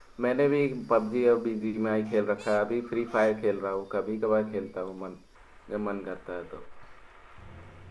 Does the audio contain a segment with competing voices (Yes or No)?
No